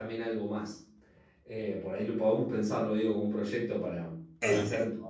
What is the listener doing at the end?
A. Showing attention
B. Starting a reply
A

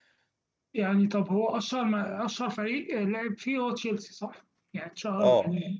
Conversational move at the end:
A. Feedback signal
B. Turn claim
B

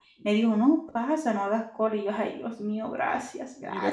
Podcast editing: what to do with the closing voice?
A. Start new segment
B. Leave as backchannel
A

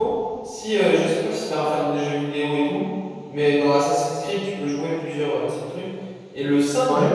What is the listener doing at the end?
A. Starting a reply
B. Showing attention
B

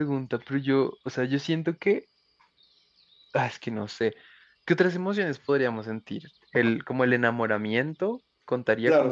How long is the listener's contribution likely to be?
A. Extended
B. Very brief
A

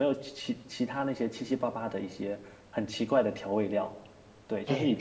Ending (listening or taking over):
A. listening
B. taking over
B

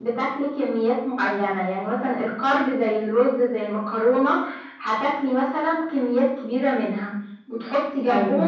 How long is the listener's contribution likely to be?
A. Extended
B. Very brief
B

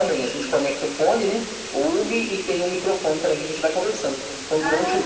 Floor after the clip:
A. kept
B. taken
A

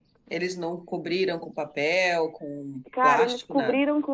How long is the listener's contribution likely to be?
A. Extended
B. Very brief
A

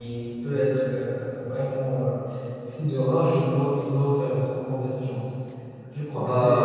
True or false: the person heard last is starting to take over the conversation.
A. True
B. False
A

